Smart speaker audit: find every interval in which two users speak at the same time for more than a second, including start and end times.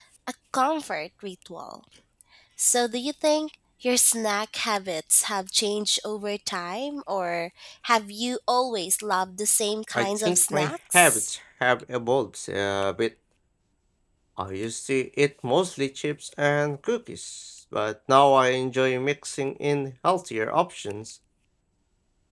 9.9-11.3

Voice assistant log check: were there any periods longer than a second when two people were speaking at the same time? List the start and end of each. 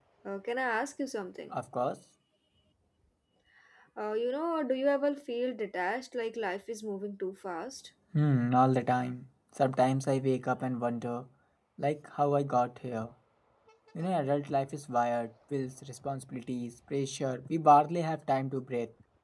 none

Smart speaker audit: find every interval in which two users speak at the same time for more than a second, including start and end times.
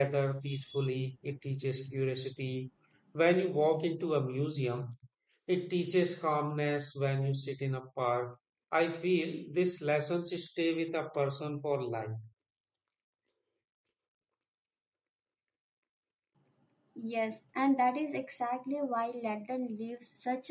none

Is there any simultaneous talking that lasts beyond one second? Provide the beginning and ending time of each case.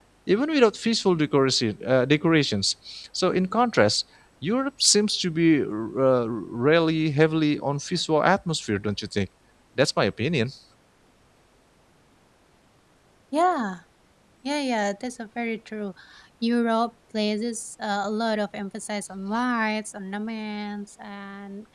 none

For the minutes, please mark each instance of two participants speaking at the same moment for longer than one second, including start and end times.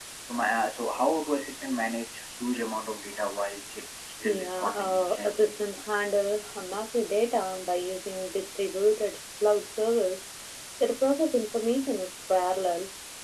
4.2-5.6

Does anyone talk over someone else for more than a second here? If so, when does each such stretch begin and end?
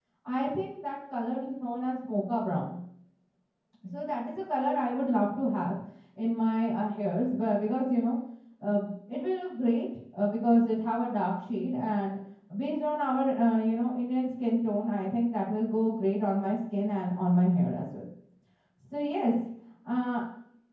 none

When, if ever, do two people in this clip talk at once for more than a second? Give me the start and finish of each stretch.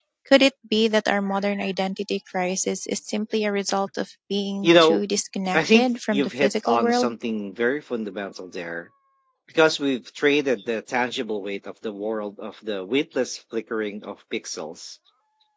5.5-7.1

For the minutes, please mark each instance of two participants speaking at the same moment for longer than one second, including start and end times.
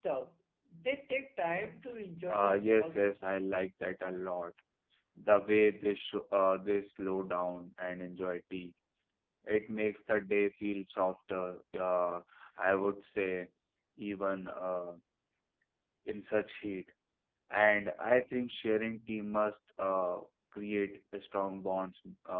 2.3-3.5

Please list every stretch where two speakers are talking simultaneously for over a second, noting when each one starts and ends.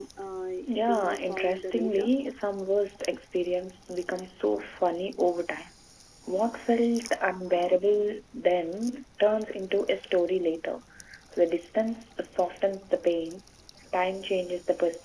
0.9-2.1

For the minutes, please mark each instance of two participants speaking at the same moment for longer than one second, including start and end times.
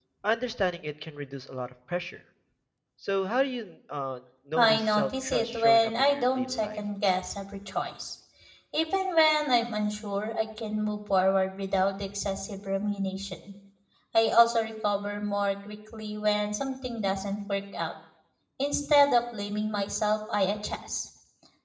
4.6-6.8

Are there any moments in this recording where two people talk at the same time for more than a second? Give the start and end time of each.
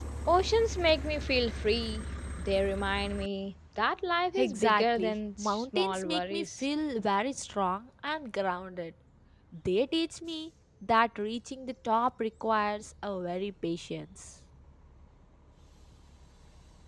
4.4-6.6

